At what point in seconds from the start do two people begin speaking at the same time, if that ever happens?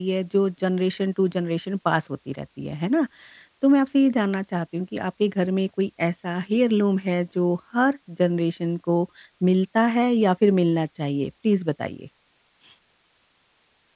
none

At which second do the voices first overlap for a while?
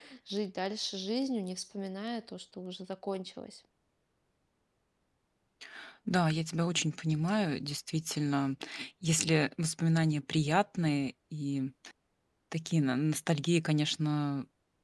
none

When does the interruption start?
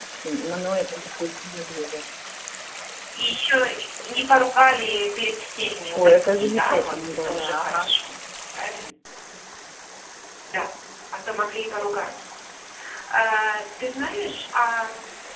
5.9 s

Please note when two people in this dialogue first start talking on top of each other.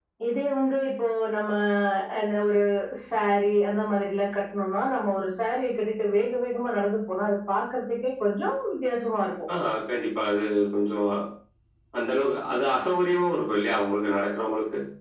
none

